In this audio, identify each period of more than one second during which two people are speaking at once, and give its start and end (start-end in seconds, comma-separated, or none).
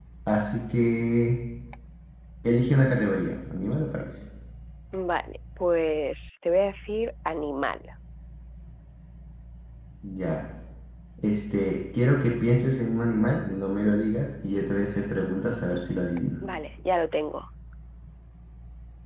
none